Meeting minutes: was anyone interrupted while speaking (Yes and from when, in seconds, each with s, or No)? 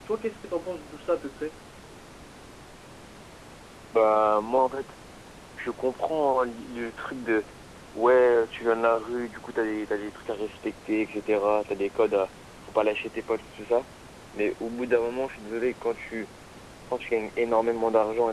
No